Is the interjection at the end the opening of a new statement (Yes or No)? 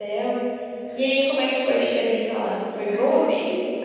Yes